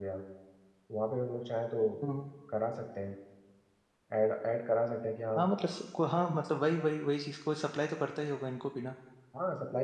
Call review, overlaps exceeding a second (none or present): none